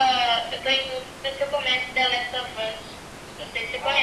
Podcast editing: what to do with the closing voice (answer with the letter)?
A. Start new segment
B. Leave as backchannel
A